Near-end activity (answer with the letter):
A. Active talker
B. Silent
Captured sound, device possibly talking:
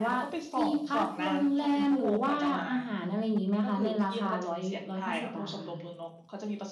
B